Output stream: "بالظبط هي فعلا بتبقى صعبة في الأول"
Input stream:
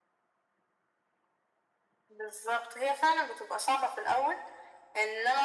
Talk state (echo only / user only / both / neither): echo only